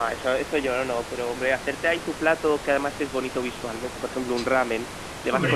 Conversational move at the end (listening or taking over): listening